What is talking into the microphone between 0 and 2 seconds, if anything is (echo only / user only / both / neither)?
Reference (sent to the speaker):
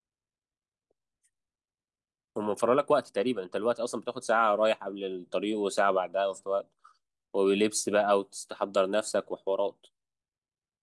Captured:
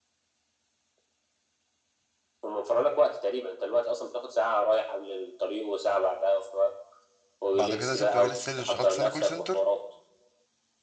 neither